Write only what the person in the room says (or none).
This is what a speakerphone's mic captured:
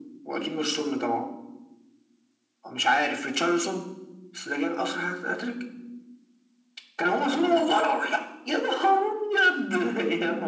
none